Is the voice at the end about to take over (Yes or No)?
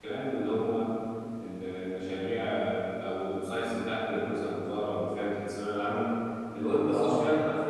No